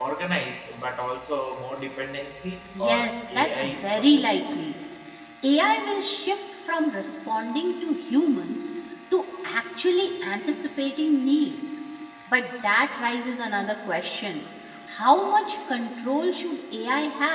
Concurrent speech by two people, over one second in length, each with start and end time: 2.8-4.2

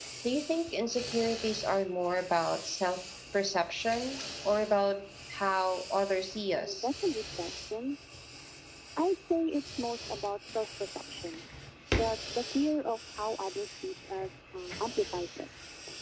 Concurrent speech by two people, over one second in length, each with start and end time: none

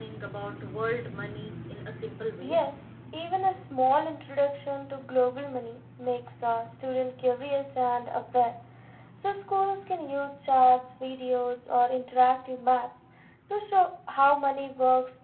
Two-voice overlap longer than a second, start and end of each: none

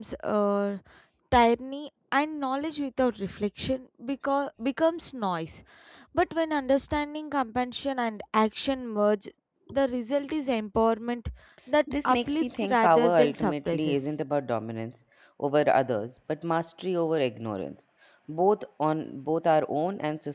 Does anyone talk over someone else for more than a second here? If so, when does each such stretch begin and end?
12.1-14.1

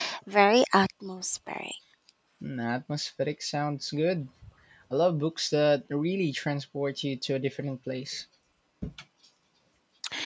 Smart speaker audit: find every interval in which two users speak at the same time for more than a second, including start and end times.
none

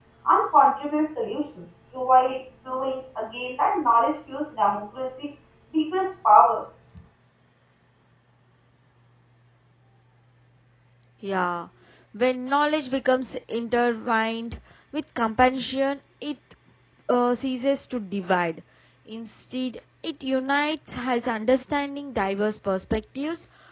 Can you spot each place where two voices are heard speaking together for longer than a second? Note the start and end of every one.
none

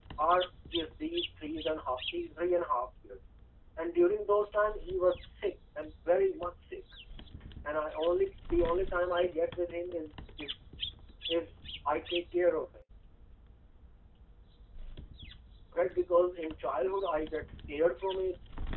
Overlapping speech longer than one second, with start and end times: none

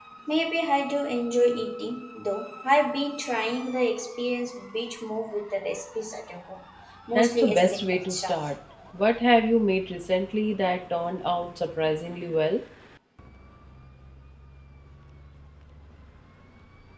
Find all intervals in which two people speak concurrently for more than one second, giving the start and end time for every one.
7.2-8.5

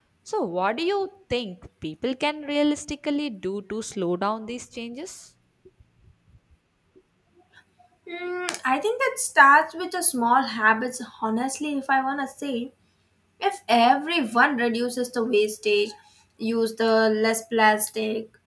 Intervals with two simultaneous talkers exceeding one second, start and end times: none

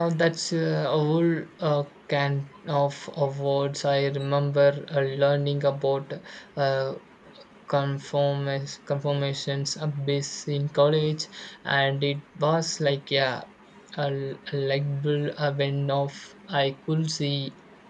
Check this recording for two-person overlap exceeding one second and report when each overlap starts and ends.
none

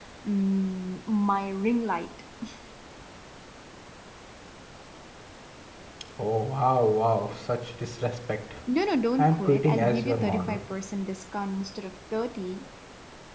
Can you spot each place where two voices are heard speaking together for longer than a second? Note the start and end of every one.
9.2-10.6

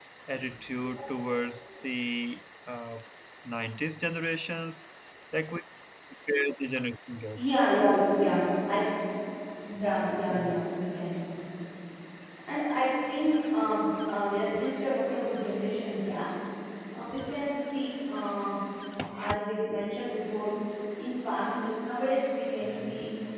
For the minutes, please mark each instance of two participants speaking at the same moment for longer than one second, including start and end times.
none

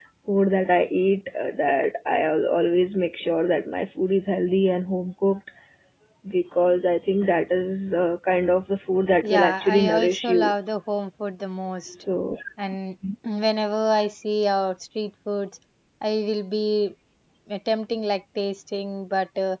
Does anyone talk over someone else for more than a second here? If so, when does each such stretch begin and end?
9.2-10.5

